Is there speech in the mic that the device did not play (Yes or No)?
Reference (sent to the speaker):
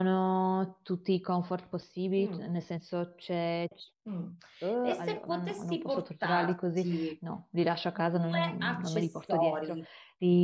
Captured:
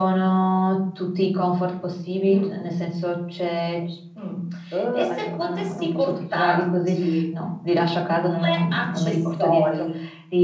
No